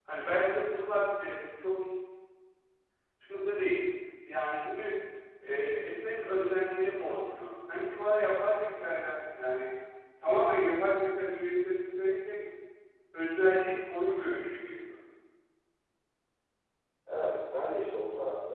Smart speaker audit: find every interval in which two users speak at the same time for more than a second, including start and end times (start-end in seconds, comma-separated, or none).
none